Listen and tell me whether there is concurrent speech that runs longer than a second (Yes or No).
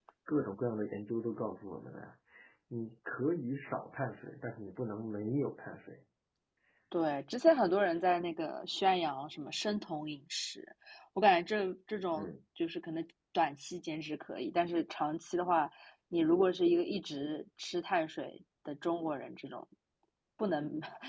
No